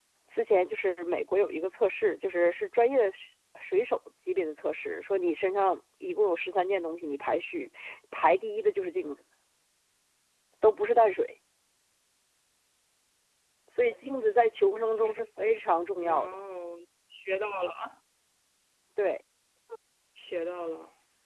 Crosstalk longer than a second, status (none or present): none